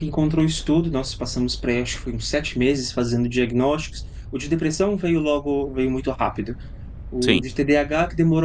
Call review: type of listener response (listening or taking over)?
listening